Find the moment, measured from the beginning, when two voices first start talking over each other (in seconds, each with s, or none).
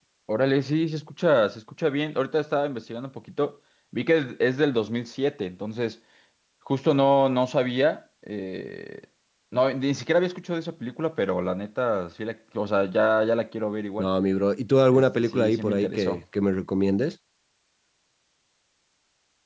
14.9 s